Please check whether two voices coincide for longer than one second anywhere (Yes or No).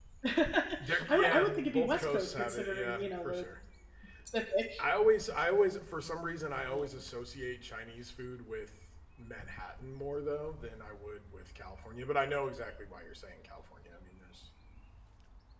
Yes